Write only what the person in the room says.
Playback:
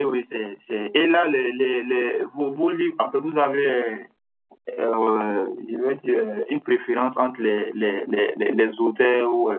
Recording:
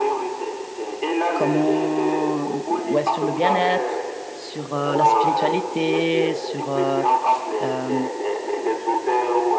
comment, ouais, sur le bien-être, sur euh, la spiritualité, sur euh, euh,

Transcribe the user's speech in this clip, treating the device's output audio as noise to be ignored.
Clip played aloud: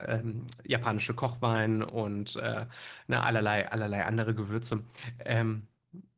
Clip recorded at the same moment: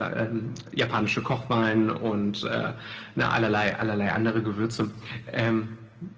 none

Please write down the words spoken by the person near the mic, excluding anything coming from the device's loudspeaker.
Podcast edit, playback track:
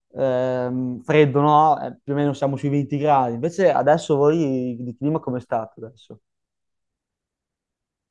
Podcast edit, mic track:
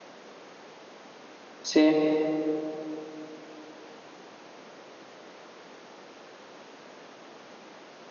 sì.

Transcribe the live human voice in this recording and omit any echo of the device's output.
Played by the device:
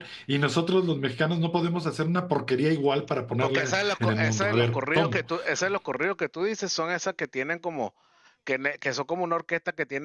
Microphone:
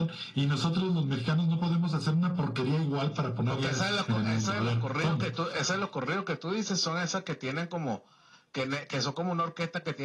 none

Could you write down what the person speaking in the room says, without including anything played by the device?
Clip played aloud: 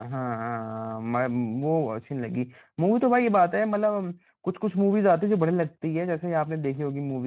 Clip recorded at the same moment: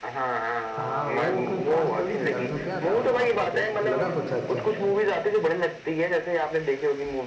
हाँ वो कोई खास थोड़ी थी यार उसमें क्या था बता आपको कुछ लगा कुछ अच्छा

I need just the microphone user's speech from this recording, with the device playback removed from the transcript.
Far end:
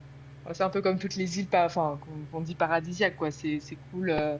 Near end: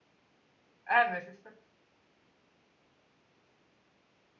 Ah, mais c'est ça.

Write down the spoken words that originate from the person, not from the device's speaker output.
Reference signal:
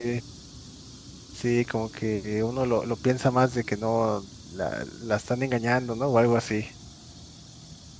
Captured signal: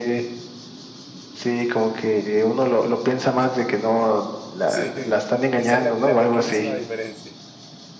Sí, esa es la, la pequeñísima diferencia.

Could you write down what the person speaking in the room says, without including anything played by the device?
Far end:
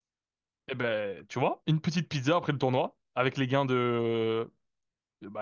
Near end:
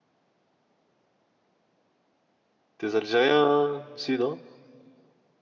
T'es Algérien, si, non?

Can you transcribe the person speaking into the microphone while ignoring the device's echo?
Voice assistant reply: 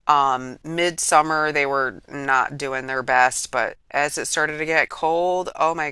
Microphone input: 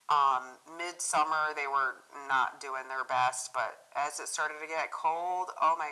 none

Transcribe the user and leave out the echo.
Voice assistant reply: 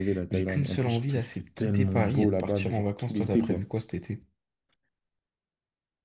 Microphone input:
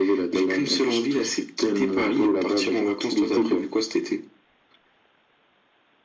none

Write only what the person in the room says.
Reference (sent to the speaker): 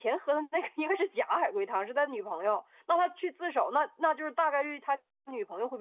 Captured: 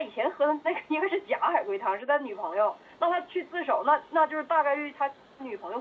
none

